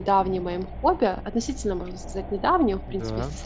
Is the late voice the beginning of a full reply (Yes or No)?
No